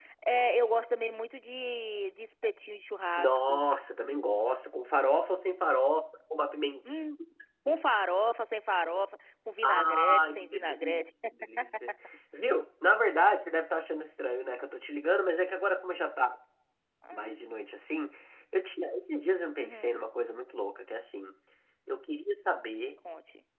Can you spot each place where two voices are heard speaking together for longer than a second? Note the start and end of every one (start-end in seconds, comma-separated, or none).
9.6-11.0